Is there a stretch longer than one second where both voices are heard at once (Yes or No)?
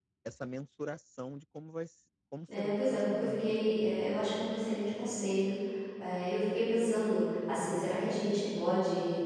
Yes